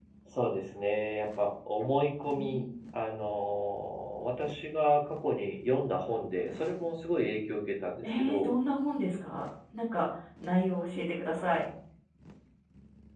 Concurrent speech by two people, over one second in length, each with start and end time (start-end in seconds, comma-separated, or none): none